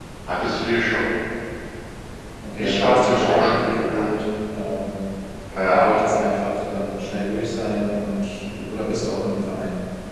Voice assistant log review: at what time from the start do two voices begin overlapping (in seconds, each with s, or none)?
2.6 s